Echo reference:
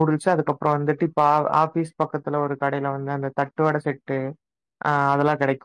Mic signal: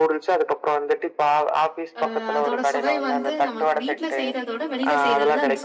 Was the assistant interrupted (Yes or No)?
Yes